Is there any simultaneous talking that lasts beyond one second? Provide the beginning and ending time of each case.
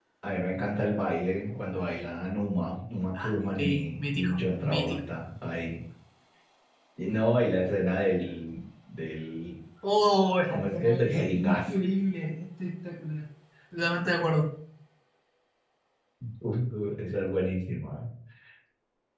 3.6-5.0, 10.5-11.8

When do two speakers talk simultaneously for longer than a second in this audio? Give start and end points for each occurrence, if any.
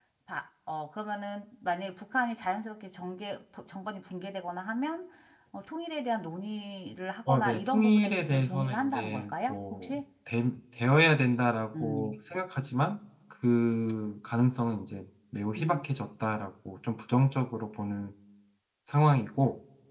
7.3-10.0

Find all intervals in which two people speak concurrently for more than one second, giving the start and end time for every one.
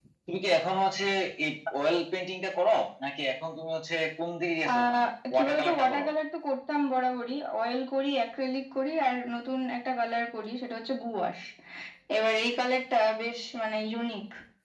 4.7-6.0

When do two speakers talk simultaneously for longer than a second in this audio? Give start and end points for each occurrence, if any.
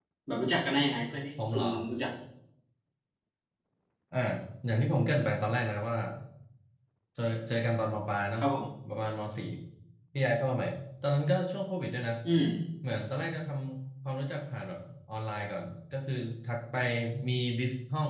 none

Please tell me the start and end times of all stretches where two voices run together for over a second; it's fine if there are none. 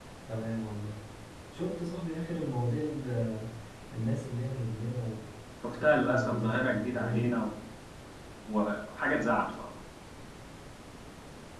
5.7-7.4

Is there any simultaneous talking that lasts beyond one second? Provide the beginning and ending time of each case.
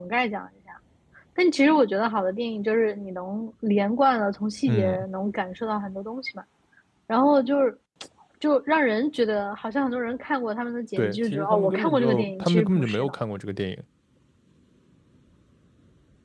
11.0-13.1

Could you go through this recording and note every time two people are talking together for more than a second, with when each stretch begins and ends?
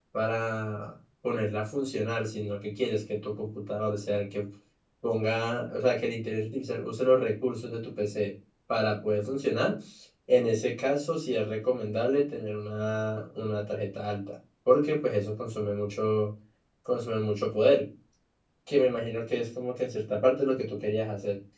none

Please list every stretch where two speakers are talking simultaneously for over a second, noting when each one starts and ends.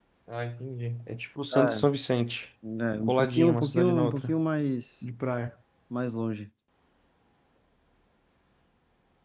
3.0-4.4

